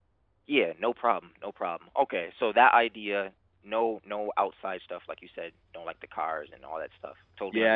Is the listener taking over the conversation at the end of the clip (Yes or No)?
Yes